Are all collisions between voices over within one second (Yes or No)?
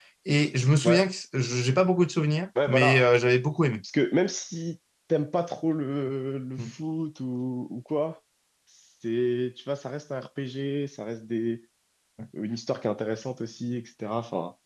Yes